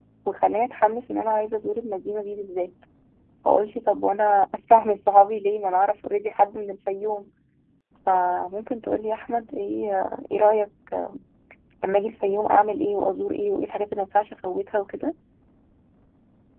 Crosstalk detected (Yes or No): No